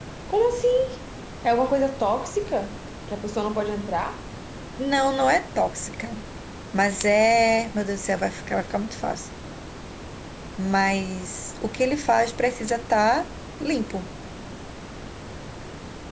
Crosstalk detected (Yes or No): No